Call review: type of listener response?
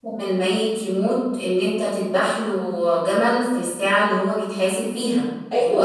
taking over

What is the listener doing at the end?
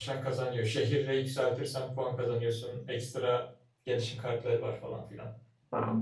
taking over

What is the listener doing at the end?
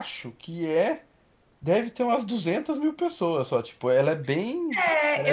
taking over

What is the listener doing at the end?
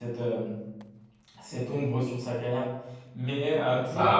listening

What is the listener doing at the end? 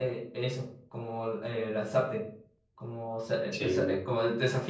listening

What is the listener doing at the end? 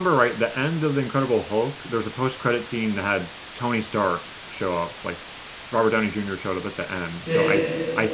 listening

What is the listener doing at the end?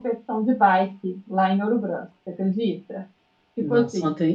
taking over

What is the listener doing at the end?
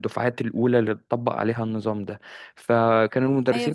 taking over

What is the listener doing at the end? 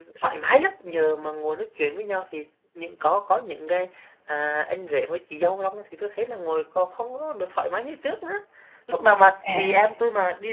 listening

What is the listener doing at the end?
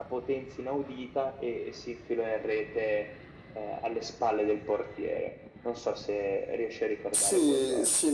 taking over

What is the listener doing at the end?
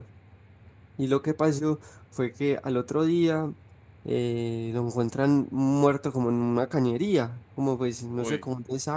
listening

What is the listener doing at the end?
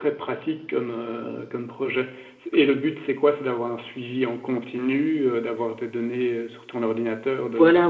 taking over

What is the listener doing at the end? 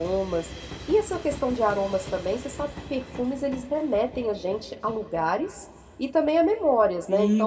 taking over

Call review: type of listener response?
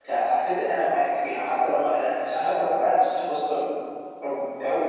listening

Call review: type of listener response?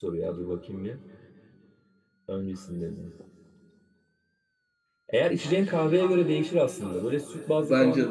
listening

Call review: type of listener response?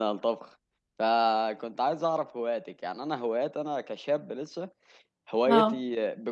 listening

